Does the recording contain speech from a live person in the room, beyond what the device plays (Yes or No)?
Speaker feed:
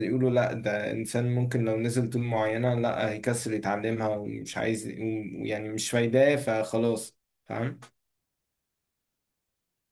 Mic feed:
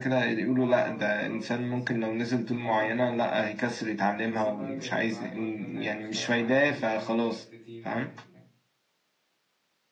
Yes